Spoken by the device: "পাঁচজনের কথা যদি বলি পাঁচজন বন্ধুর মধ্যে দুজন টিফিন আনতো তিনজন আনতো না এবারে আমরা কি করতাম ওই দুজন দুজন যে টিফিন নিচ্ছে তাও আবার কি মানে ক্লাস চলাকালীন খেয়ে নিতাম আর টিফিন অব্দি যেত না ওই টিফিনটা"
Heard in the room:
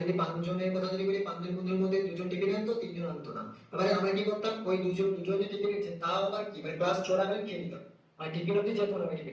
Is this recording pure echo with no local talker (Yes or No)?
Yes